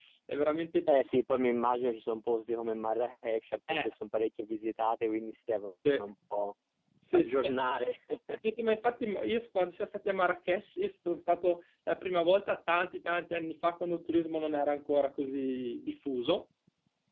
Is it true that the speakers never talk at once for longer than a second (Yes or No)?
Yes